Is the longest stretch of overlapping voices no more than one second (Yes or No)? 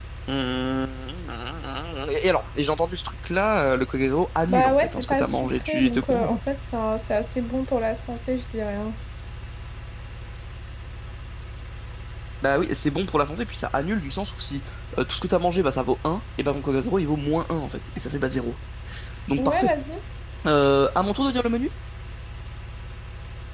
No